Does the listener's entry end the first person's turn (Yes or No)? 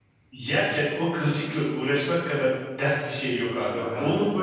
No